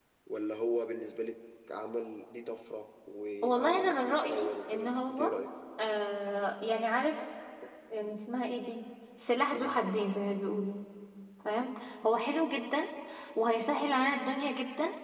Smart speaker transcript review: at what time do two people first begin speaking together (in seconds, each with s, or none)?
3.4 s